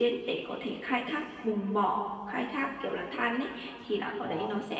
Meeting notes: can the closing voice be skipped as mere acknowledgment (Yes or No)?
Yes